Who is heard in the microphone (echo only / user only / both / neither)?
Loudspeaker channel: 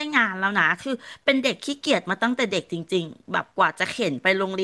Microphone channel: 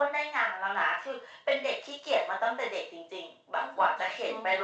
both